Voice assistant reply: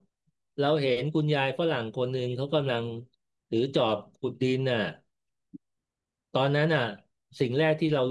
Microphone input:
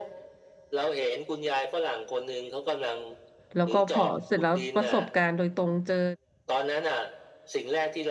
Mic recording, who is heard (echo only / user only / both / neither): both